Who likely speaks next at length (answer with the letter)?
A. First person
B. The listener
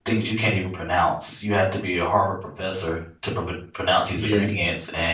A